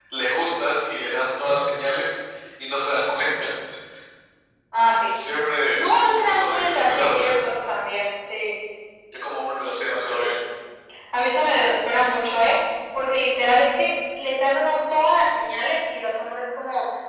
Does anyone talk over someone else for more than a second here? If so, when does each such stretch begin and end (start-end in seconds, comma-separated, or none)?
5.7-7.4